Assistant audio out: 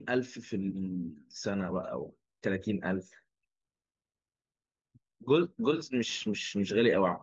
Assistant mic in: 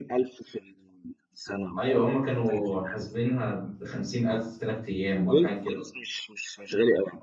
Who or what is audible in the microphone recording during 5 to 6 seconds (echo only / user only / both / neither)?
both